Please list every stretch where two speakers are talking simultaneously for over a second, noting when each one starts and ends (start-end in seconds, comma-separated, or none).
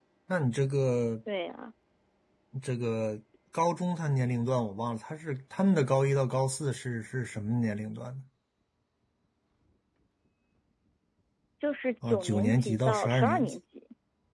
12.0-13.5